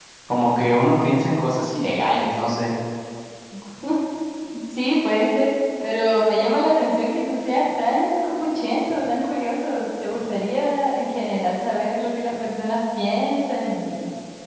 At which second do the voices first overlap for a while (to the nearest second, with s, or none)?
none